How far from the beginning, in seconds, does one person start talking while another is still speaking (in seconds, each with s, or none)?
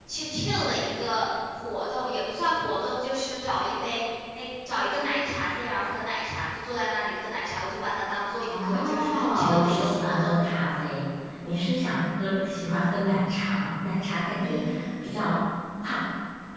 8.5 s